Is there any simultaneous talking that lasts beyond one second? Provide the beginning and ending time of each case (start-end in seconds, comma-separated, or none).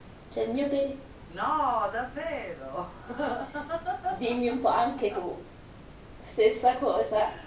none